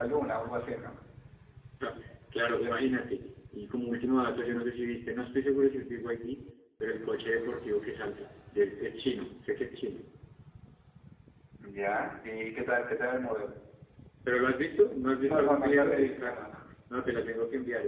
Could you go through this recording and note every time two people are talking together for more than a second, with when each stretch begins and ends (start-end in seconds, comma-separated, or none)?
15.2-16.4